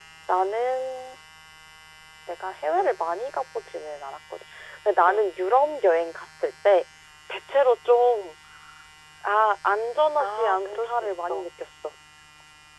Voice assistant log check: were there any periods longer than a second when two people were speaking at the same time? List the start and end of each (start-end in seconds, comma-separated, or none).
10.2-11.5